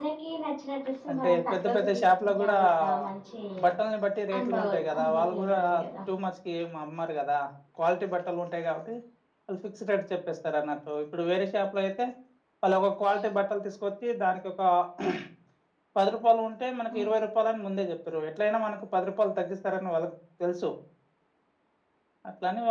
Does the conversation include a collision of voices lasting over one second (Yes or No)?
Yes